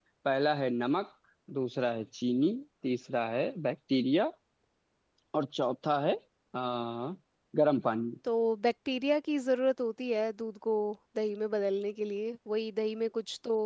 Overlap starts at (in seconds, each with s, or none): none